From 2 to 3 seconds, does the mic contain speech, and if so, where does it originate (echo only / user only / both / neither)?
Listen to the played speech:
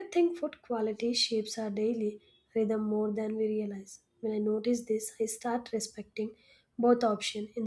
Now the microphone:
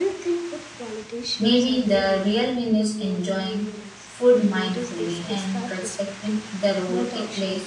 both